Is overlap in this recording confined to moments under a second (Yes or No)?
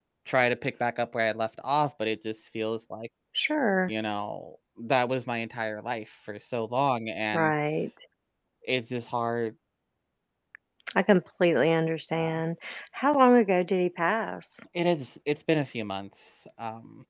Yes